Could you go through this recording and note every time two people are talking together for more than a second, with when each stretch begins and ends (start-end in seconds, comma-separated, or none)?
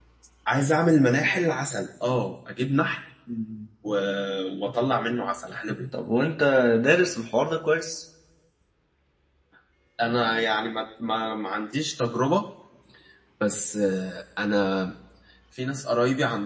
none